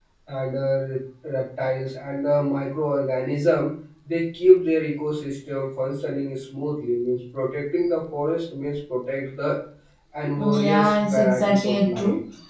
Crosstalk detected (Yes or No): Yes